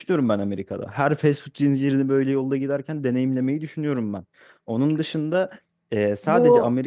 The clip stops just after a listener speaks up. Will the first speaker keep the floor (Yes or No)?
Yes